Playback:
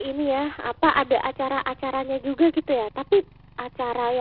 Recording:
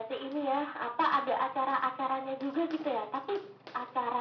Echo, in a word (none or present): present